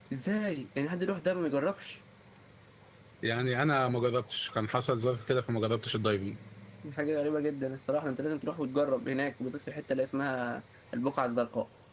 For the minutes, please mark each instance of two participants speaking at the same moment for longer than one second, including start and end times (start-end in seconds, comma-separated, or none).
none